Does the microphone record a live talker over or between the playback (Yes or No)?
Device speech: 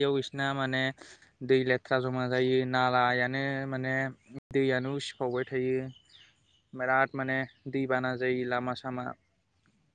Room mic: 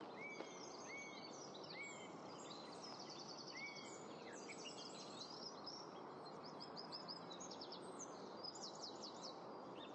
No